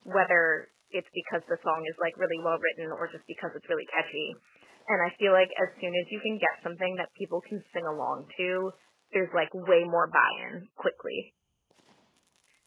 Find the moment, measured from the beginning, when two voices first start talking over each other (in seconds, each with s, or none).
none